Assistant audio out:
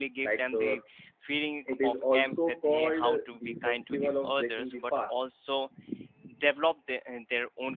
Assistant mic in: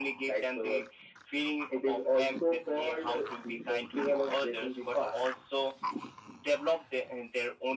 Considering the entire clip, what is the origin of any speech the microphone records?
echo only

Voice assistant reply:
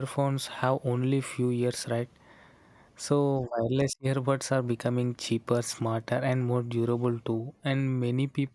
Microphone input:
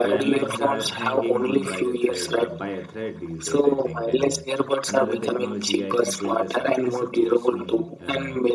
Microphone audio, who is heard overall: both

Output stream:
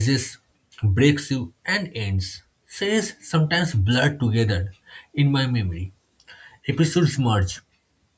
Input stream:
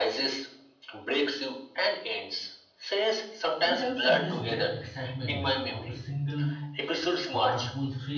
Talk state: both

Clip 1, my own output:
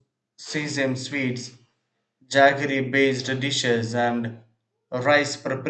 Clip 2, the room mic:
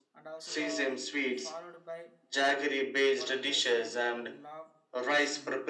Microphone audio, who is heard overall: both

